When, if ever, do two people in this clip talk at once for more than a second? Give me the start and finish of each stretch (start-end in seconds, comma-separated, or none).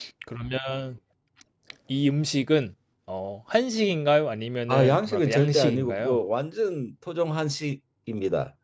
4.7-6.2